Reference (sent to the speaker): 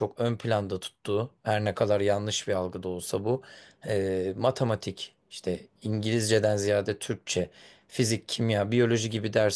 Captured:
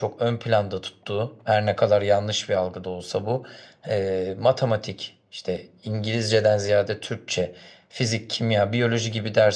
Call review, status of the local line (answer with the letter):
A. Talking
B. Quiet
B